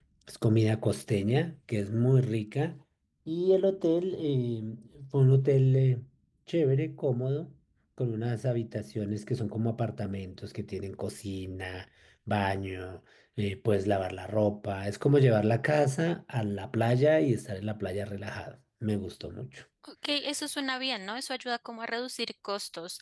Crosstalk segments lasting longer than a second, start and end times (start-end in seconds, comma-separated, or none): none